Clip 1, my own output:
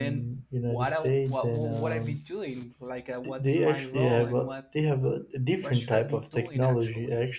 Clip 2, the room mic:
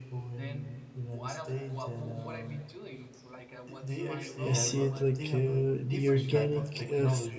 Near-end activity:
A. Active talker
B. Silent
A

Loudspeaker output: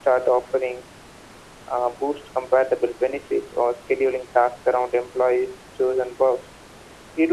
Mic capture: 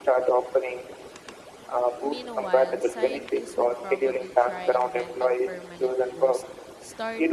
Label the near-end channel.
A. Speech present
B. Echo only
A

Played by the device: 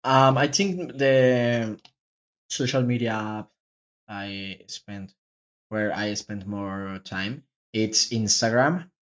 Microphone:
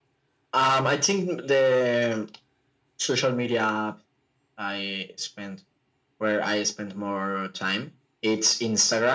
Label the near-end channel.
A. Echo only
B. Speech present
A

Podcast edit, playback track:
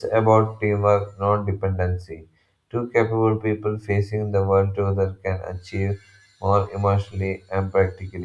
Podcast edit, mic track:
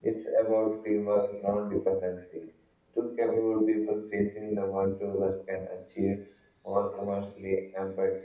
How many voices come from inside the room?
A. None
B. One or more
A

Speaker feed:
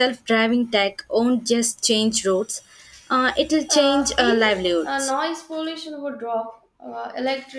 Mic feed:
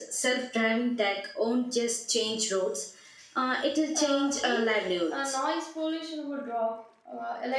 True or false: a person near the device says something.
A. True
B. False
B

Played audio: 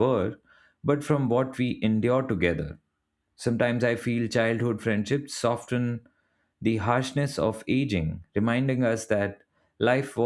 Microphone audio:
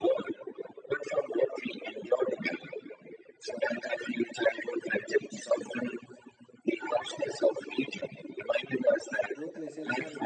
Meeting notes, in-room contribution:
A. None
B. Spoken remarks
B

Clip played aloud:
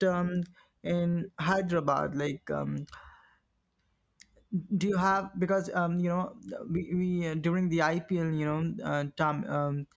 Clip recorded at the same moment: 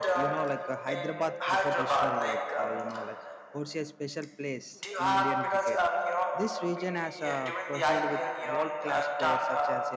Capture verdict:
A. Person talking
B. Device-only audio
A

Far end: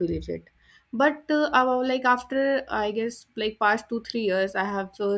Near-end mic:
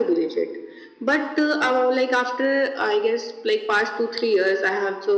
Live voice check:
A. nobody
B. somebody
A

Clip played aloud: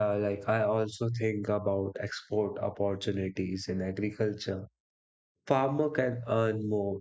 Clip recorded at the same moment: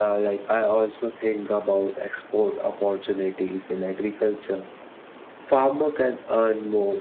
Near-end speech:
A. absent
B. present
A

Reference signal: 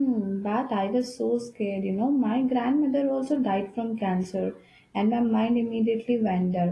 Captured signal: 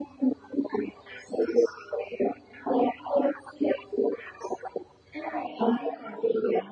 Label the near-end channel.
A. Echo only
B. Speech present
B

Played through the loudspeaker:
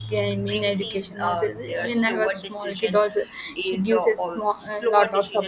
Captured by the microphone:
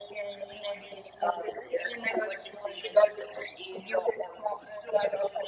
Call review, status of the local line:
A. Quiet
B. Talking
A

